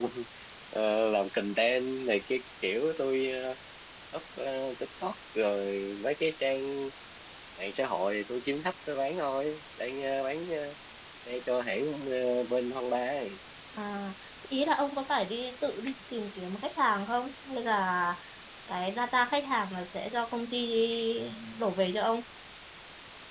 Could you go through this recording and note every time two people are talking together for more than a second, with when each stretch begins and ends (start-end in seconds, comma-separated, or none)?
none